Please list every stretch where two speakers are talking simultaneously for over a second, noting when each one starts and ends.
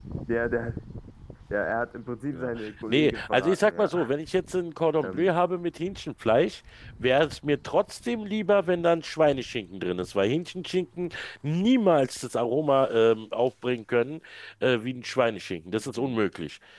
2.9-4.1

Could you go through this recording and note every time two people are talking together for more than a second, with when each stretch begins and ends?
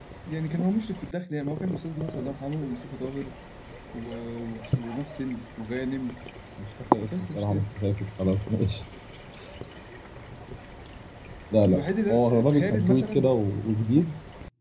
11.6-13.3

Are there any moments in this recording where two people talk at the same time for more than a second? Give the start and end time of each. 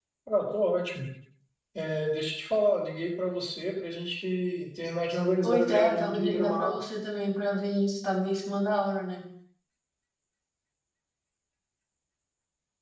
5.4-6.8

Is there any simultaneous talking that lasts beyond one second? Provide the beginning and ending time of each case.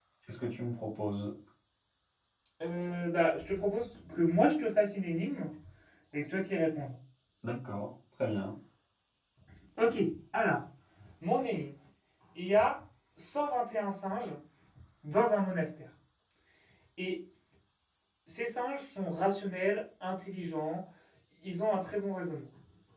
none

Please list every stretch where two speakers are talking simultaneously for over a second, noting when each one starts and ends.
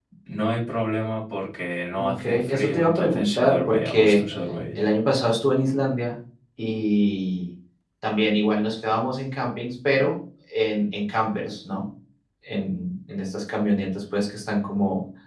2.0-4.2

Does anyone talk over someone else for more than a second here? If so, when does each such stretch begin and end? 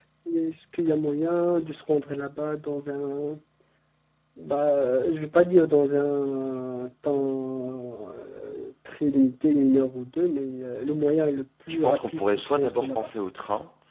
11.7-13.1

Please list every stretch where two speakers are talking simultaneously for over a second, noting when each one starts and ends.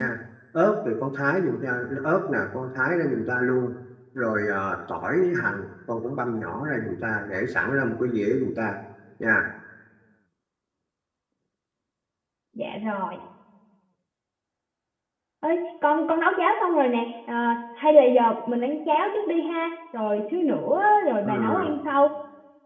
none

